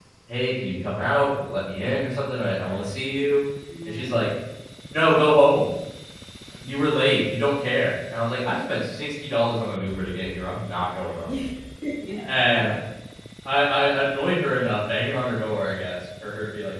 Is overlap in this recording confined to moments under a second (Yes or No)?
Yes